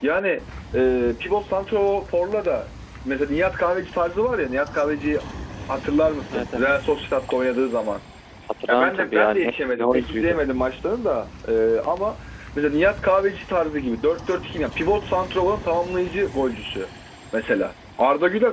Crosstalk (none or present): present